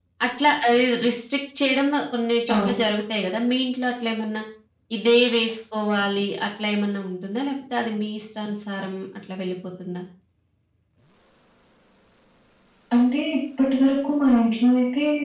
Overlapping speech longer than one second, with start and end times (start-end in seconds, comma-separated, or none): none